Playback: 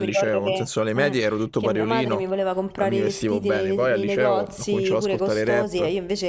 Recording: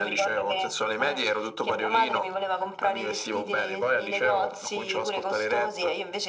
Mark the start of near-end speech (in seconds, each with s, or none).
none